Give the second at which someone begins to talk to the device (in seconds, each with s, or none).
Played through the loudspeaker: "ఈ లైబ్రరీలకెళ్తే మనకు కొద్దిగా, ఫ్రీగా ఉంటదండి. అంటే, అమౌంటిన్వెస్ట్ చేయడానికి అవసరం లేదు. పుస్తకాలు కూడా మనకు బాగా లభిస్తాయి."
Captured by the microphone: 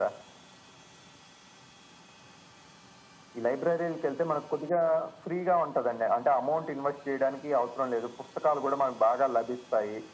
none